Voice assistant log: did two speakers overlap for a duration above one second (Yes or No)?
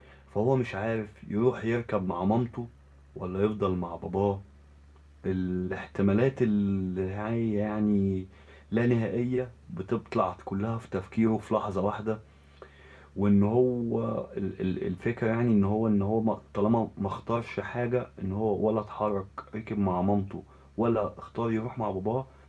No